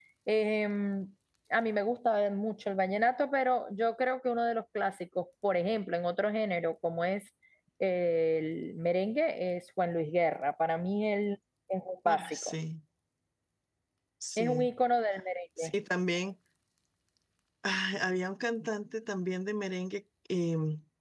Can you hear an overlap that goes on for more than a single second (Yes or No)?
No